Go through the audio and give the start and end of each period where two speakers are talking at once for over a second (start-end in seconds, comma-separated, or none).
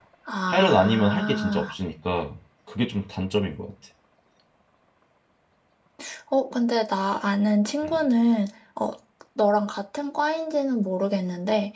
0.5-1.7